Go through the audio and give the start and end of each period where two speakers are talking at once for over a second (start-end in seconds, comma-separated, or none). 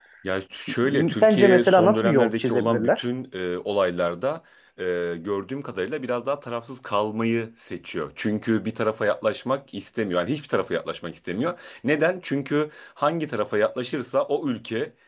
0.8-3.0